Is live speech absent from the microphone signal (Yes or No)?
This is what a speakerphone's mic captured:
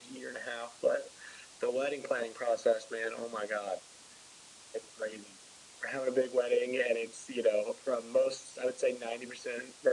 Yes